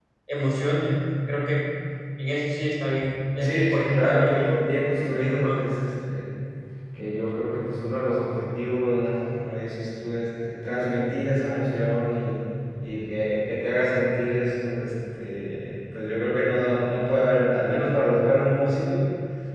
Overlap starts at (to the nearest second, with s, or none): 3 s